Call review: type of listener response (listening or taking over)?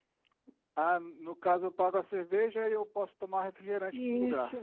taking over